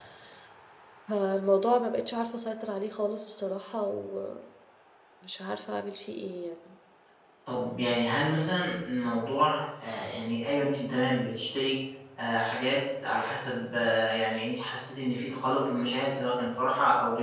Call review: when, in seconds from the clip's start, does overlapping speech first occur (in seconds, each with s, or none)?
none